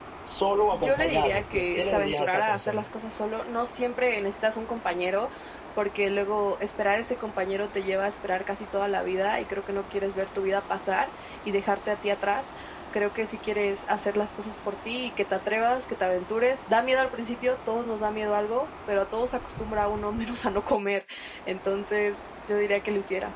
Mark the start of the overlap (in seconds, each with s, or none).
0.7 s